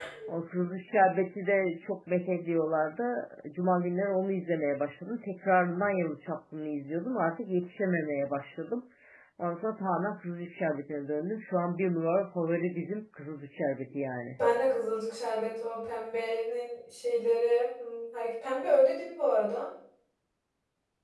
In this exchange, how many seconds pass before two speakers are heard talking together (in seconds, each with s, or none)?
none